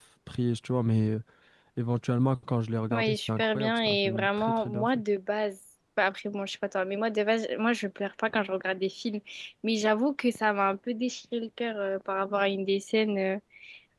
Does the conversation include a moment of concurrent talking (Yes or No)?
Yes